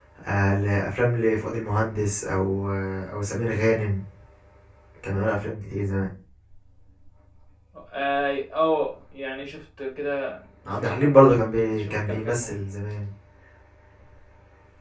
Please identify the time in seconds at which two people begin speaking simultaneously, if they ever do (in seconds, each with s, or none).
10.7 s